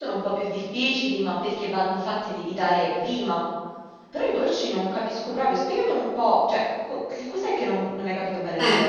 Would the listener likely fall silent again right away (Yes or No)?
No